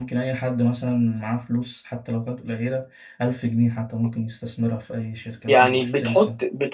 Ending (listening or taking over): taking over